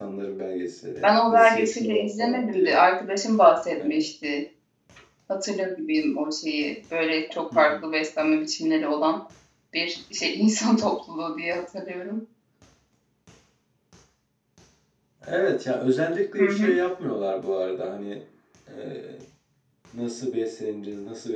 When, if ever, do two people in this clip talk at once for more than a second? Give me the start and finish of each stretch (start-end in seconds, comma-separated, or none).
1.0-2.8